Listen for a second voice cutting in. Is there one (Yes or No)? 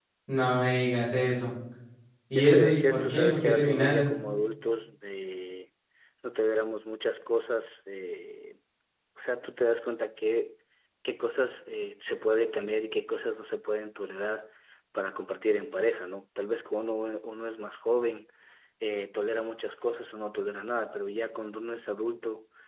Yes